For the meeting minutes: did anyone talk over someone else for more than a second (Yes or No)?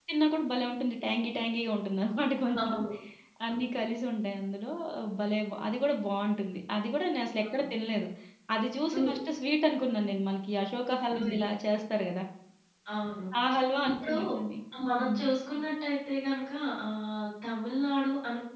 No